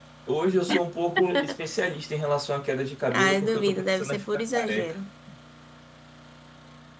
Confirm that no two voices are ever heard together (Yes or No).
No